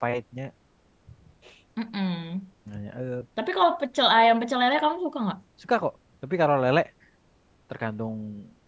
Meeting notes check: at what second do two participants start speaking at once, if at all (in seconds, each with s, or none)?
none